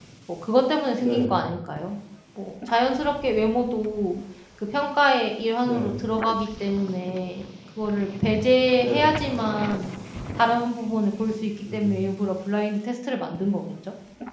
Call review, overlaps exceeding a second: none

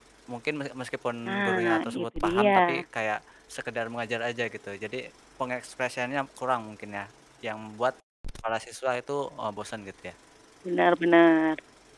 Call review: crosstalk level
present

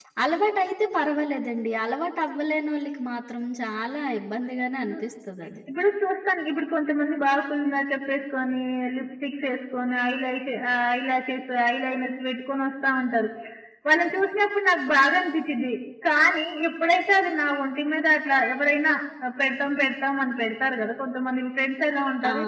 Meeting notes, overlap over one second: none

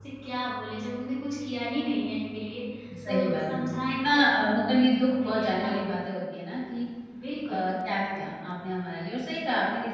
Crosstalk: present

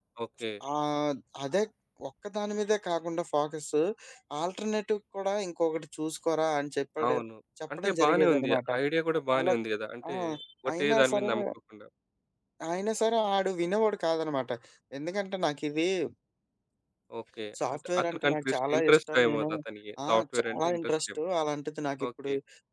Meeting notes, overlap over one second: present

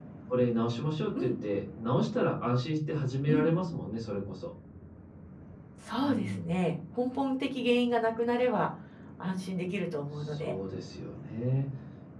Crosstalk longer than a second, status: none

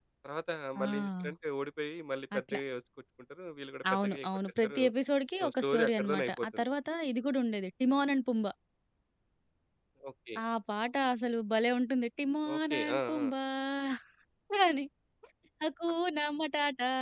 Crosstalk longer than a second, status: present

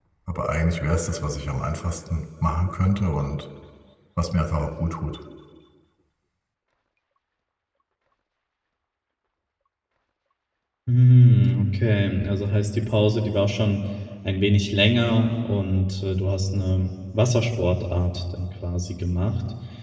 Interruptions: none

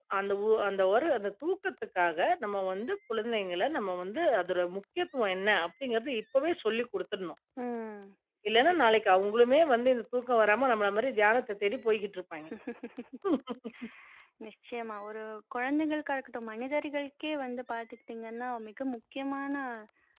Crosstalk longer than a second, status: none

